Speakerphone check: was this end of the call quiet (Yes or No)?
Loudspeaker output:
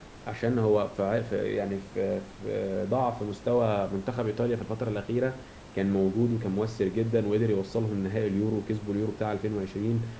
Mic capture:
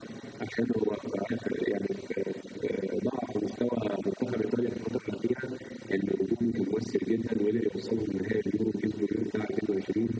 Yes